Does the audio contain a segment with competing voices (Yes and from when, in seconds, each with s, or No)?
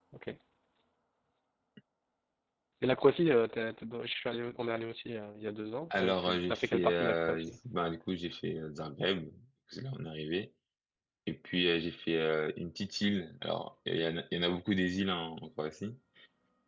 Yes, from 5.9 s